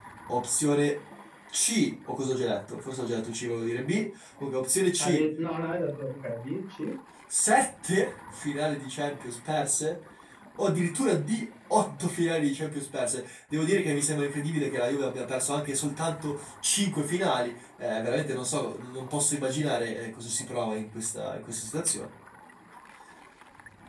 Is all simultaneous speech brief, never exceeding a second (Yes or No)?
Yes